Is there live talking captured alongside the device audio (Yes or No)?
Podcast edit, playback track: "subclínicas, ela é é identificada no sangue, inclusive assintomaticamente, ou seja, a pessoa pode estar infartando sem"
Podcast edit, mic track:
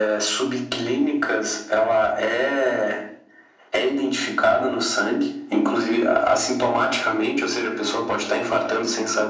No